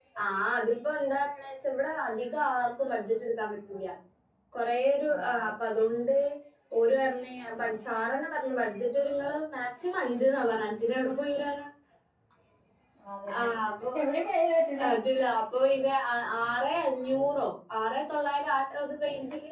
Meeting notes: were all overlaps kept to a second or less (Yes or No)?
Yes